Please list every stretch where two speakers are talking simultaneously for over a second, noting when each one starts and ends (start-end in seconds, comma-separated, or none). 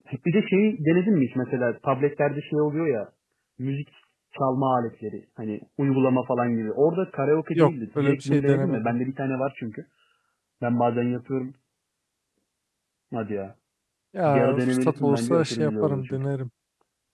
7.5-9.0, 14.2-16.2